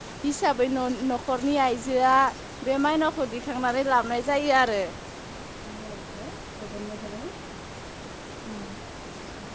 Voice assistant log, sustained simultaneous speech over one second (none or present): none